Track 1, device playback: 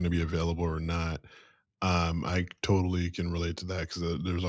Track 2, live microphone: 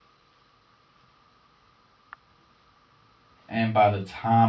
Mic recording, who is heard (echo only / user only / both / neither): user only